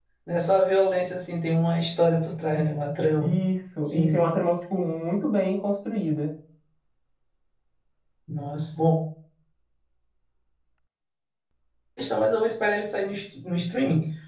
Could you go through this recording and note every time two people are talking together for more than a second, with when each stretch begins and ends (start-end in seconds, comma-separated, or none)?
none